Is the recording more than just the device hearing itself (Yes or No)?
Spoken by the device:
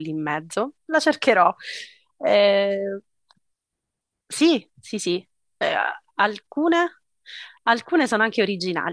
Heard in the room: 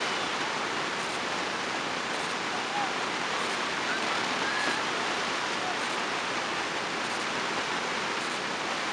No